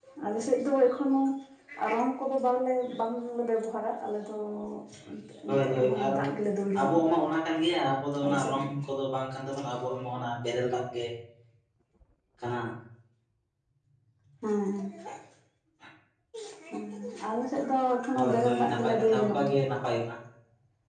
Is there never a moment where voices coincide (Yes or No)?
No